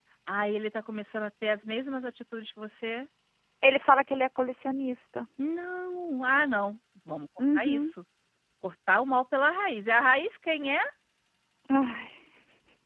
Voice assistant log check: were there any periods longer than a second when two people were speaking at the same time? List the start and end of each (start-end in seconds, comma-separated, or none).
none